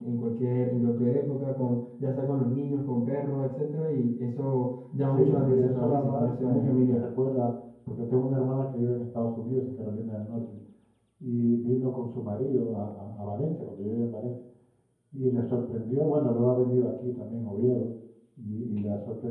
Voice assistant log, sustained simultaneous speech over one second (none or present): present